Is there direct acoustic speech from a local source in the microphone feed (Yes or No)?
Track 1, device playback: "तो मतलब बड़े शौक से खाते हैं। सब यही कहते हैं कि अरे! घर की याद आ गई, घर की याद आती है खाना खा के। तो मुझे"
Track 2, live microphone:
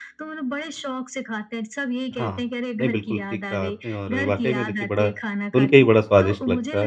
Yes